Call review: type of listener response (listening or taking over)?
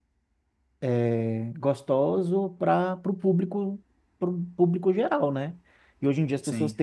listening